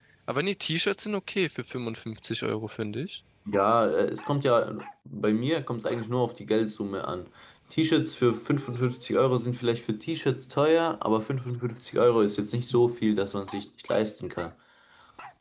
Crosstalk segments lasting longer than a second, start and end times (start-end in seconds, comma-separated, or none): none